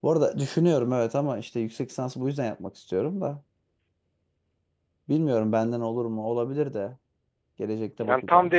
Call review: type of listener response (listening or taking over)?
taking over